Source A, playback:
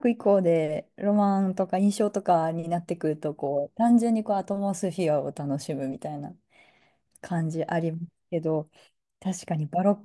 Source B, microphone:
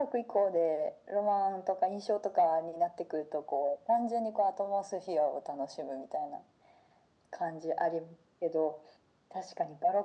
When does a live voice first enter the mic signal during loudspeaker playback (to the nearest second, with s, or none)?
none